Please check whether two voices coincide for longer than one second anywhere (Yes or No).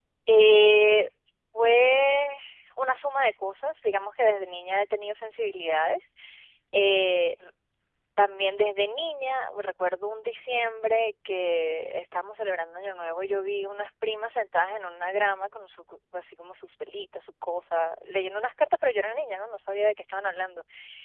No